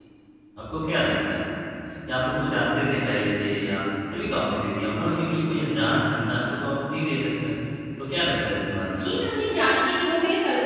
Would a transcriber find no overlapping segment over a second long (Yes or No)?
Yes